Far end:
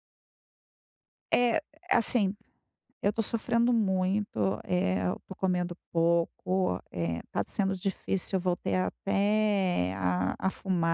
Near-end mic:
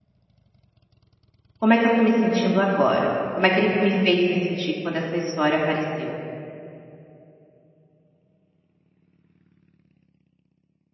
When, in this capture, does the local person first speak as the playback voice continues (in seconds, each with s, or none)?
1.6 s